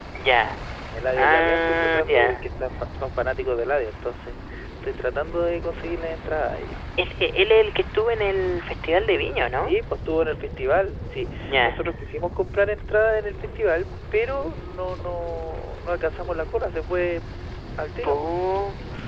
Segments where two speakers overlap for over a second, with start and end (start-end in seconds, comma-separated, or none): 1.2-2.4